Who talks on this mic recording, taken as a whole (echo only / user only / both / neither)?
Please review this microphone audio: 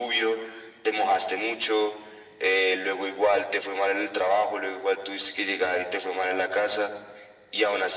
echo only